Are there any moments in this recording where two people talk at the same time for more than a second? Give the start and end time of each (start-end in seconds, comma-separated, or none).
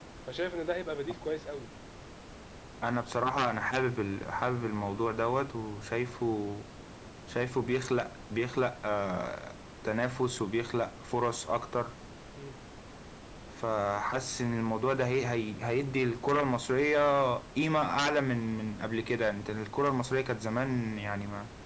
none